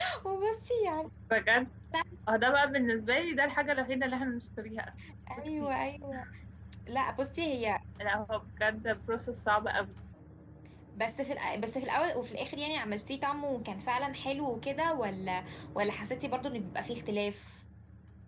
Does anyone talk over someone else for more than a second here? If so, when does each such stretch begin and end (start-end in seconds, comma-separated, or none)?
none